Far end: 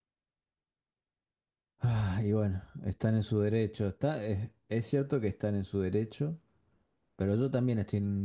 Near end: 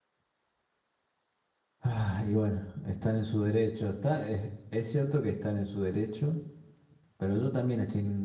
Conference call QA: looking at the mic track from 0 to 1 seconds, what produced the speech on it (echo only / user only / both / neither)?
neither